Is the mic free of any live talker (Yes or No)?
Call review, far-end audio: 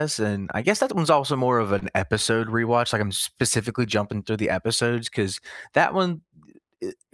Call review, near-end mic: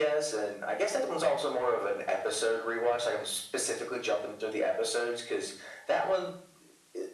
Yes